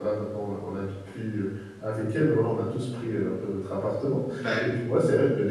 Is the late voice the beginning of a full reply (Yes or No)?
No